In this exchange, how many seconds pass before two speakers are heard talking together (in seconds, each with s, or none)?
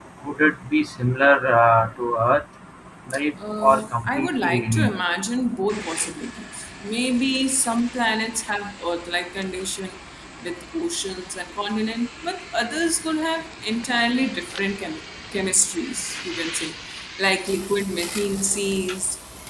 3.6 s